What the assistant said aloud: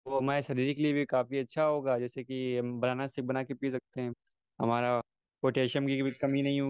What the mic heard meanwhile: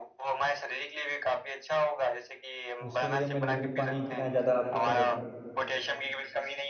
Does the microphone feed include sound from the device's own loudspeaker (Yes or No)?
Yes